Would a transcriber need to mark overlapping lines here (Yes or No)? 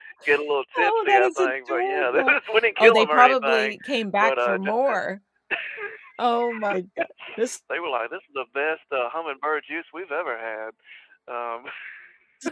Yes